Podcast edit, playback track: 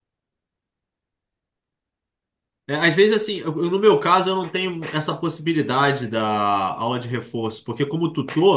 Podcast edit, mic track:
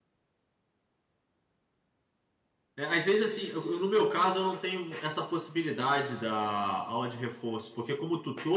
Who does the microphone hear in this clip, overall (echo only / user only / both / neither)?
echo only